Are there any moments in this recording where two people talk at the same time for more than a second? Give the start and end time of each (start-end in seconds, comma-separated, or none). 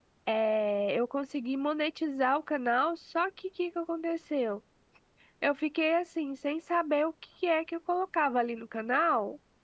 none